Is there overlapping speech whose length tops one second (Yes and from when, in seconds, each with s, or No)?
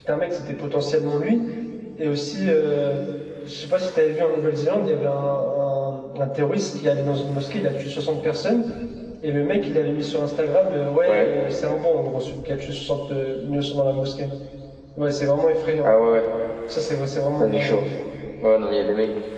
No